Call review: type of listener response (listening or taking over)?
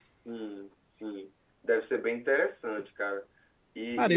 listening